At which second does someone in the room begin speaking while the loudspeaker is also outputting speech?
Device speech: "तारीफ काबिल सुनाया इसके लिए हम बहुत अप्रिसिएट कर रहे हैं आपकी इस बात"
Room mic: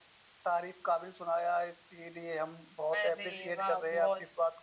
3 s

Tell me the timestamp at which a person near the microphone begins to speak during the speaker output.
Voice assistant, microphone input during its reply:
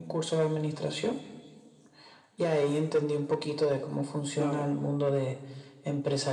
4 s

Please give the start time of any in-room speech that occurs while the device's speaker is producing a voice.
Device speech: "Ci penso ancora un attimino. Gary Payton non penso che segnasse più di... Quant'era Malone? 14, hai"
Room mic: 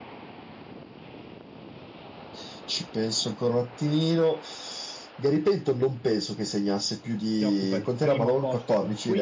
7 s

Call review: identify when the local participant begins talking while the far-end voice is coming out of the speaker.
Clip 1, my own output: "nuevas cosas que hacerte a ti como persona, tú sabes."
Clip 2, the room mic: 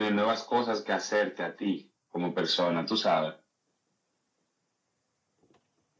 none

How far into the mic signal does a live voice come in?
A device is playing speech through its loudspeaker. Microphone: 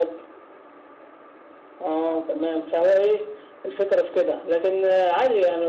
none

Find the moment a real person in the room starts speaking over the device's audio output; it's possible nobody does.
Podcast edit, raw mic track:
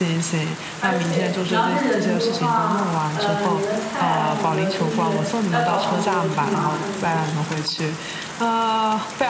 1 s

